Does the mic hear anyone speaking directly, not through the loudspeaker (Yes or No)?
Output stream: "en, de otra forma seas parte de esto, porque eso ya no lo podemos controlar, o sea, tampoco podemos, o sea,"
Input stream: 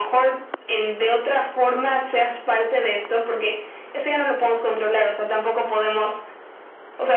No